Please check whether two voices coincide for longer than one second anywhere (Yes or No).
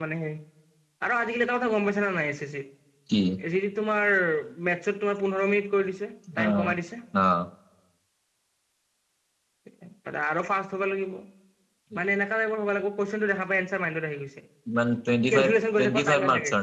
Yes